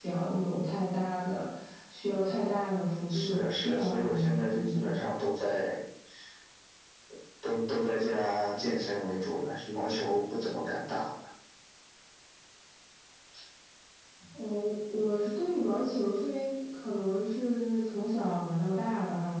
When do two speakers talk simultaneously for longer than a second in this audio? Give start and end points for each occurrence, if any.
3.1-5.0

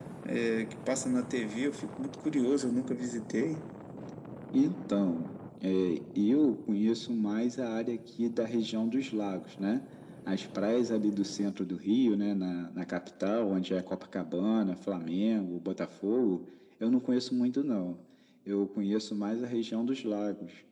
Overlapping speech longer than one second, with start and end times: none

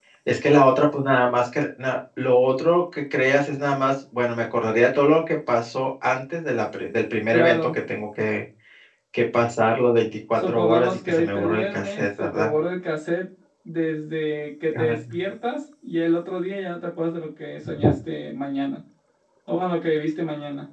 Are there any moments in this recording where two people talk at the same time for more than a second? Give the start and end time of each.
10.3-12.5

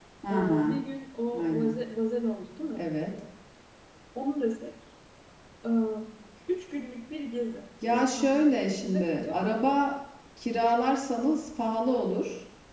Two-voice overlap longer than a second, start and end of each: 7.8-9.8

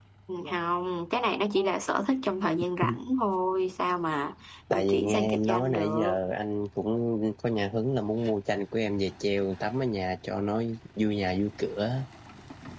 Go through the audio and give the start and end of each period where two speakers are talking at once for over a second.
4.7-6.2

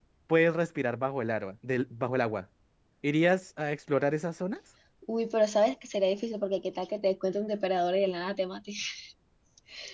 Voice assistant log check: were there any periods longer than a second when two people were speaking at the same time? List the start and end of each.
none

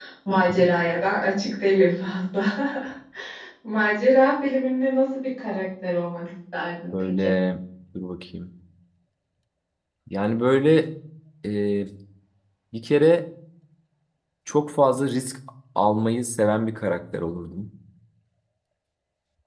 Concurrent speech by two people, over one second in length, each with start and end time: none

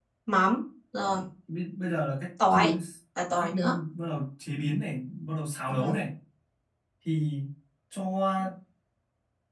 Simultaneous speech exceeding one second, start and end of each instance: none

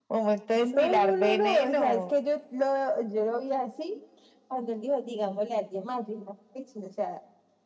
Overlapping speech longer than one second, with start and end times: 0.5-2.1

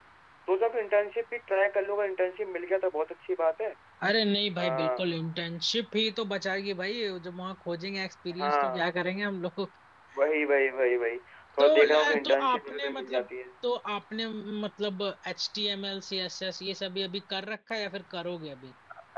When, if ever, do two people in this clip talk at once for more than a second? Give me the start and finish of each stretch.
11.6-13.3

